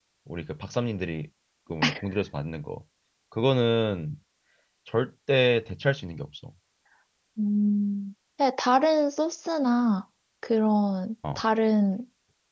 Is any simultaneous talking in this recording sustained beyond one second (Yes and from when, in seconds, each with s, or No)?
No